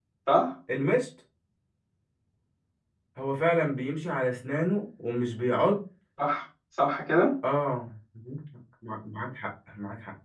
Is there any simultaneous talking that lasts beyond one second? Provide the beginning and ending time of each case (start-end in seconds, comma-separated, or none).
none